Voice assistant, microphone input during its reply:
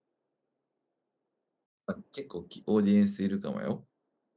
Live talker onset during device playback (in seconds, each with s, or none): 1.9 s